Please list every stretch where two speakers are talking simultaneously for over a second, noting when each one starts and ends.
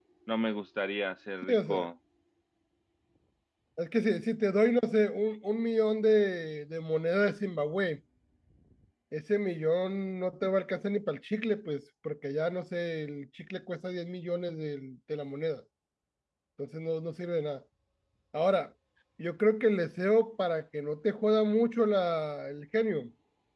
none

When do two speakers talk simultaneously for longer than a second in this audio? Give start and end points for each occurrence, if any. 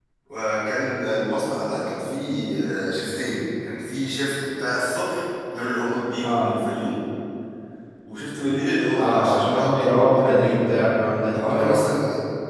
9.0-10.5

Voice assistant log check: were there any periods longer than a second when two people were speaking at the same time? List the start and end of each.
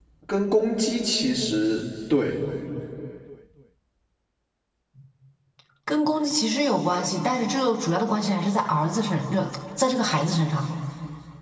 none

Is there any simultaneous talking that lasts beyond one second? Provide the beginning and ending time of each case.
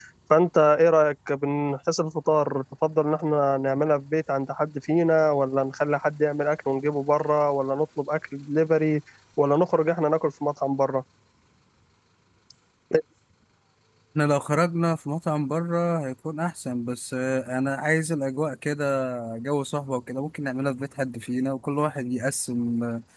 none

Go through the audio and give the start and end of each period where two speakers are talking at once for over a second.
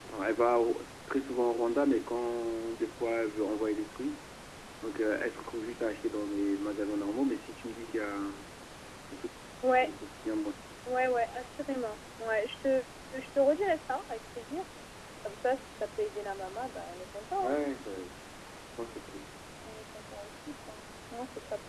none

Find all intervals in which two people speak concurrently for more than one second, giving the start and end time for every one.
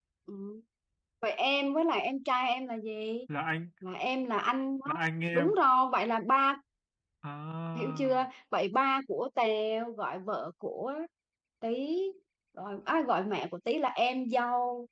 none

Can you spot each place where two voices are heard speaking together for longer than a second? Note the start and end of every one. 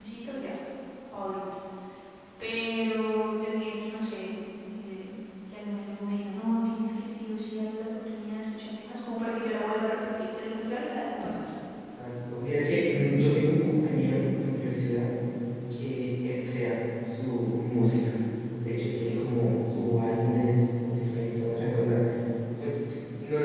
none

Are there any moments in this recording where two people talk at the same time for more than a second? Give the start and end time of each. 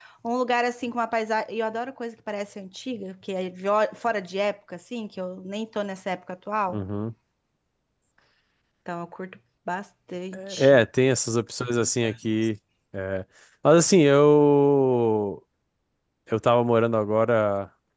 none

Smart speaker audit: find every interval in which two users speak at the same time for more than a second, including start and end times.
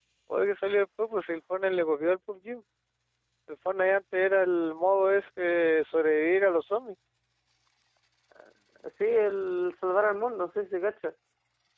none

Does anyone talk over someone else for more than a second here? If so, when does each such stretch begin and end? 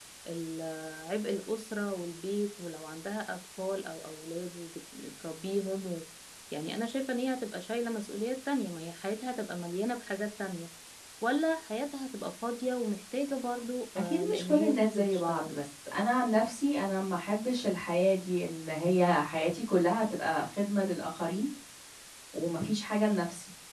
14.0-15.6

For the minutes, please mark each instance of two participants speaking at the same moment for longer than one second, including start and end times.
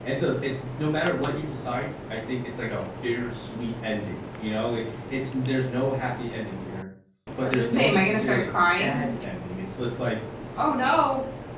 7.4-9.1

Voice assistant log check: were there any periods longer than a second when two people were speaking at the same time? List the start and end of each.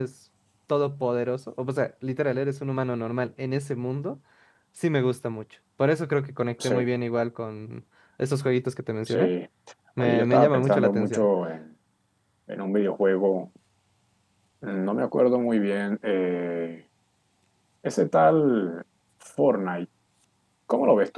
10.0-11.3

